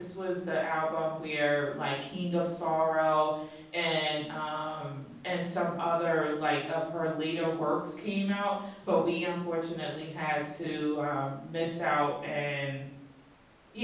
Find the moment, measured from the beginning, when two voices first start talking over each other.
none

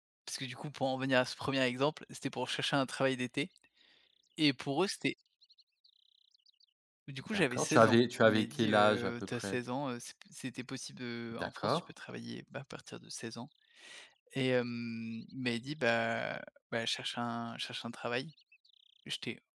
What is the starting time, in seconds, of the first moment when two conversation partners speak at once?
7.3 s

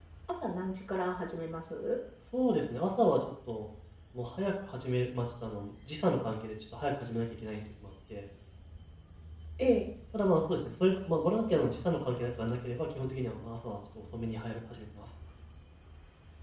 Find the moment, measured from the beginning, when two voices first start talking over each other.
none

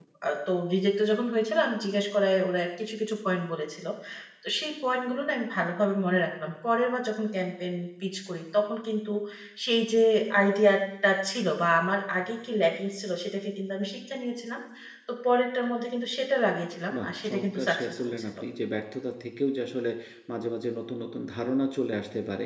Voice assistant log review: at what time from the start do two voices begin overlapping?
16.9 s

